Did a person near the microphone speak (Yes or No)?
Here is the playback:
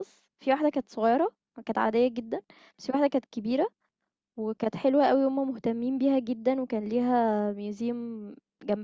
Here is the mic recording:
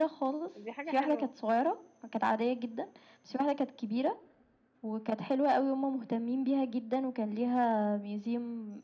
Yes